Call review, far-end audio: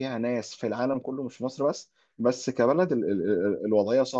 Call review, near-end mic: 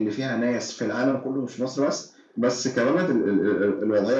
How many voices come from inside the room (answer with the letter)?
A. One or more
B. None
B